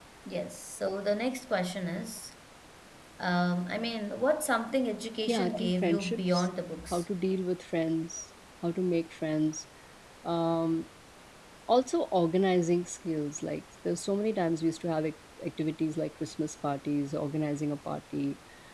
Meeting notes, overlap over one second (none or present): present